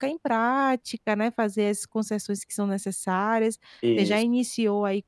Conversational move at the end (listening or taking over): listening